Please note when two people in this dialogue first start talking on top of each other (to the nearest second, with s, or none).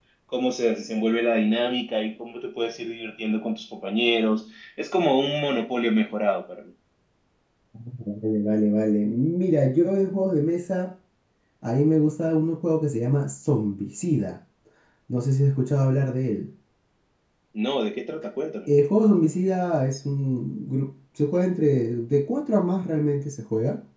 none